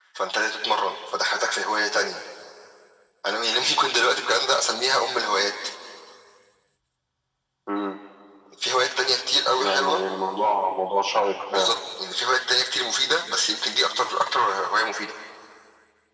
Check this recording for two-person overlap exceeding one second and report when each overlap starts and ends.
none

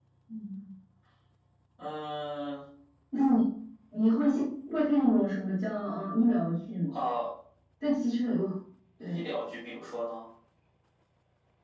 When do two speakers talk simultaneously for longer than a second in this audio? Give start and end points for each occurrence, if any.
none

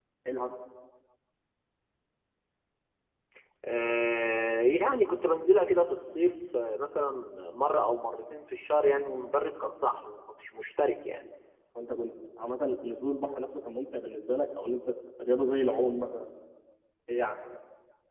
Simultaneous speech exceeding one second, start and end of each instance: none

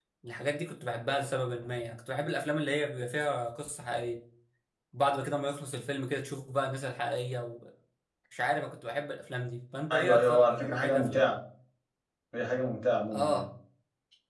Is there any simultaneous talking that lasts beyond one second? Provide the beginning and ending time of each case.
9.9-11.4

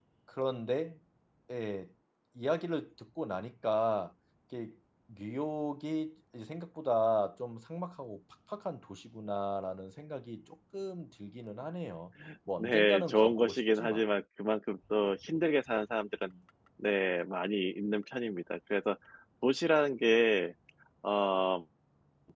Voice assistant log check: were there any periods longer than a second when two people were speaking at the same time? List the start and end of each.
12.6-14.1

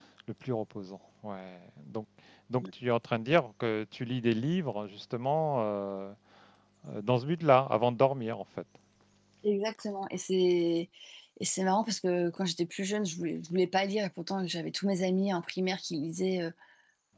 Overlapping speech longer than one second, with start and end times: none

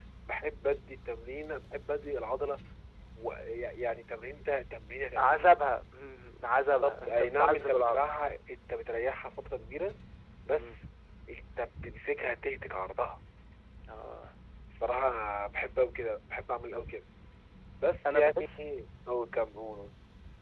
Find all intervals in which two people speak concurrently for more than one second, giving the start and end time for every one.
6.6-8.0

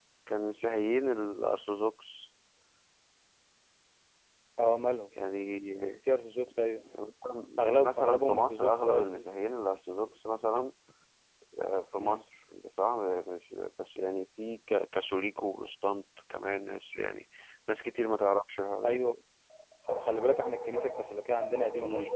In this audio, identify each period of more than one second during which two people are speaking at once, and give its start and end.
7.6-9.1

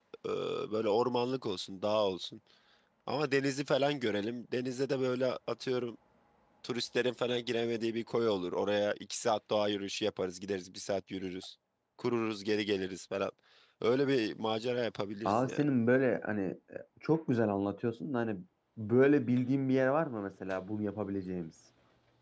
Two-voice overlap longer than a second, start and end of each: none

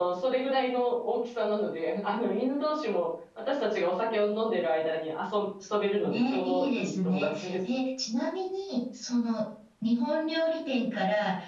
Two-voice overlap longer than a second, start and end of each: 6.0-7.5

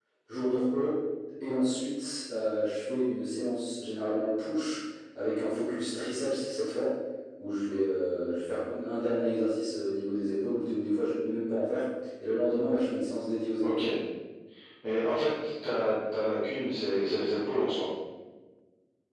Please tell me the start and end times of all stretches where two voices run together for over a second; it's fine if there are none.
none

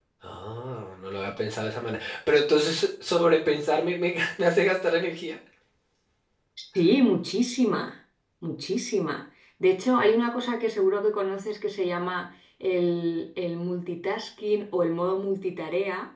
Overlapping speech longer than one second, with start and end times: none

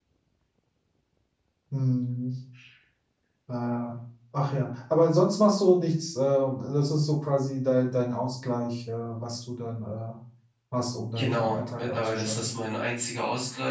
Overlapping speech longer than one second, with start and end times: 11.2-12.6

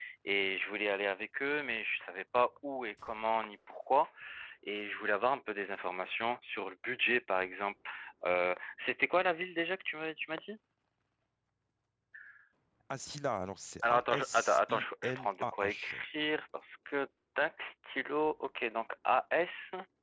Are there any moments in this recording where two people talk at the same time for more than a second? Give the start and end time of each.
13.9-15.9

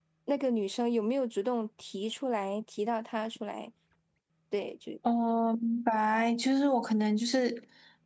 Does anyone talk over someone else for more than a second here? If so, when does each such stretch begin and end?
none

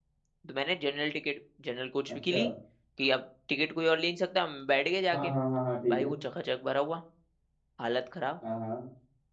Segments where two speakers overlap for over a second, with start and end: none

